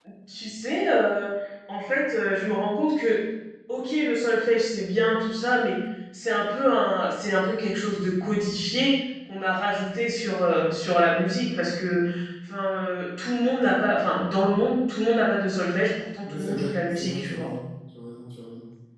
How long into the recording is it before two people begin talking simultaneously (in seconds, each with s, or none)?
16.2 s